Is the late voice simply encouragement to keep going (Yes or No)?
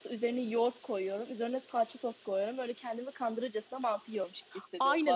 No